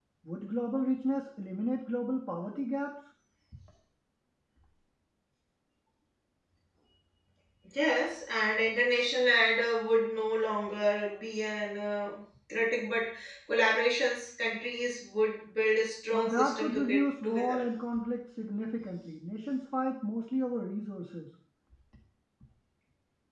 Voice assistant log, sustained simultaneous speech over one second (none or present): present